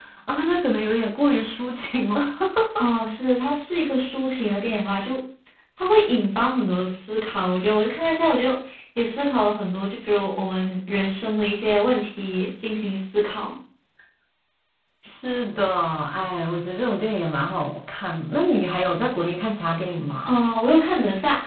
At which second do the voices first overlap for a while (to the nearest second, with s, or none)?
none